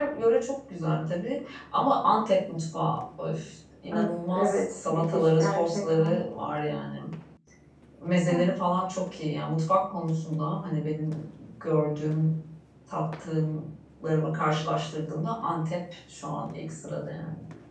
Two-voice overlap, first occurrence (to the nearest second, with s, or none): 4 s